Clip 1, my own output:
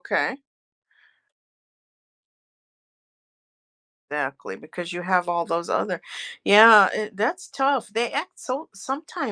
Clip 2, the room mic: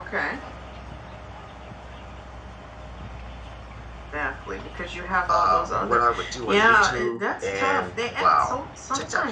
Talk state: both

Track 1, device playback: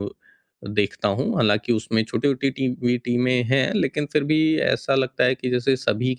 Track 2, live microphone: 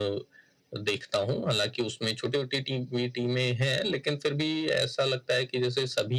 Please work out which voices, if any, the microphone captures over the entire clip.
echo only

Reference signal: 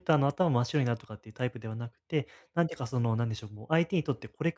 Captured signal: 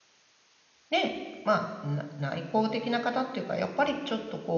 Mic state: user only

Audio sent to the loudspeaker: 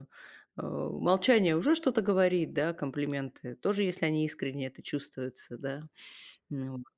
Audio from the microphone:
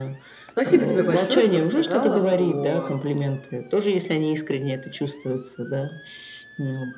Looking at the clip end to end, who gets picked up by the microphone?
both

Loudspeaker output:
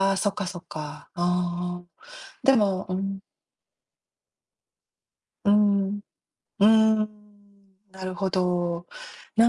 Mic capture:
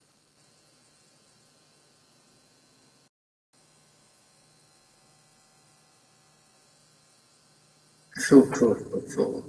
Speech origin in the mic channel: user only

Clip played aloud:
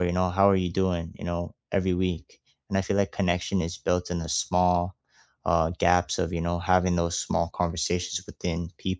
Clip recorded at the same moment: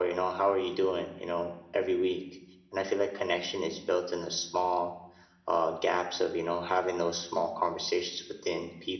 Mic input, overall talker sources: echo only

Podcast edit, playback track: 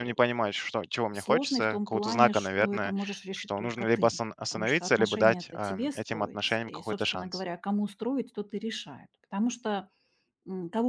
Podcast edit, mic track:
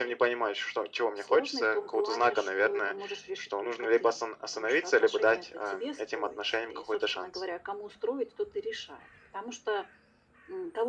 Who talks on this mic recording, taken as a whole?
echo only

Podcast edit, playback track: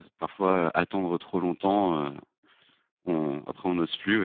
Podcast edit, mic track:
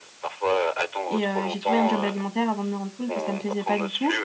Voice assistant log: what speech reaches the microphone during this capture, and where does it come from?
both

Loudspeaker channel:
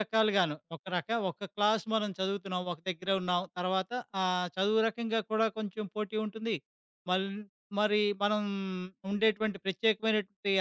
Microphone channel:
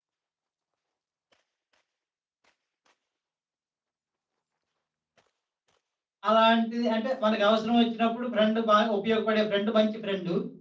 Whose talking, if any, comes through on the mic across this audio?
user only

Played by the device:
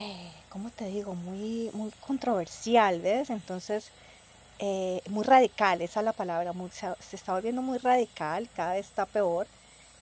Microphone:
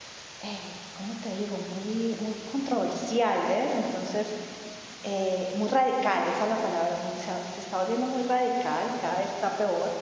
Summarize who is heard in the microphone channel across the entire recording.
echo only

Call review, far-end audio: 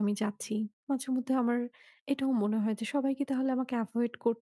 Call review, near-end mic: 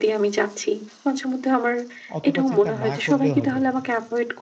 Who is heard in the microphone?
both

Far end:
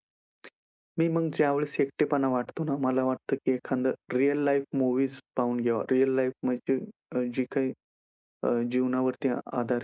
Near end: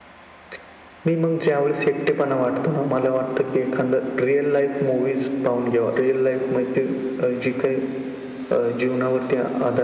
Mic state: echo only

